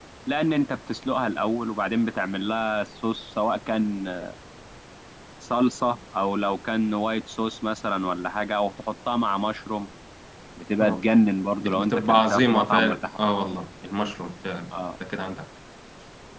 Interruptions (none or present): present